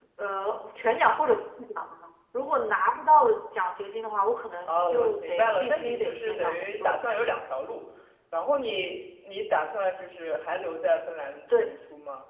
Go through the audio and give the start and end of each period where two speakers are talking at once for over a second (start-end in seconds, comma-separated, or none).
4.6-7.0